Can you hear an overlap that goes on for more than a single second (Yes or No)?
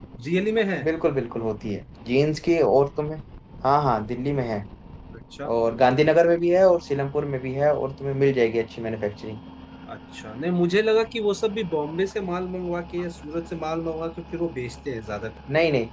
No